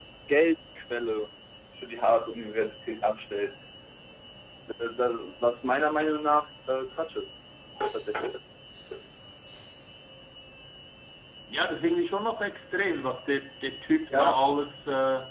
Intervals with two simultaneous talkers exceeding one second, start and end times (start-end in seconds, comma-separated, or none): none